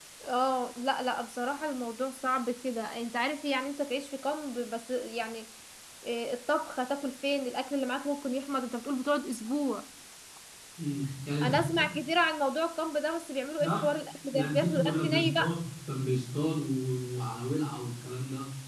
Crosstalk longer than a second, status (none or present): present